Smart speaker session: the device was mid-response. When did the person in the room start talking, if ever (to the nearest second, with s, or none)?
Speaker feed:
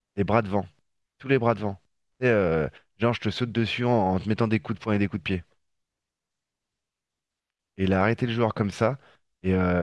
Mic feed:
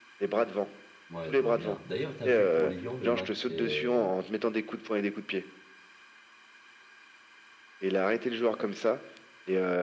1 s